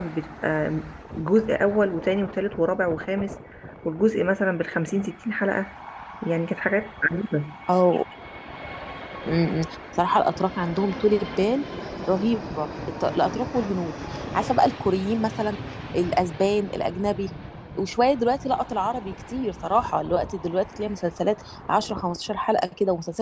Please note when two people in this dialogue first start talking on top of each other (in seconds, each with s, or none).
none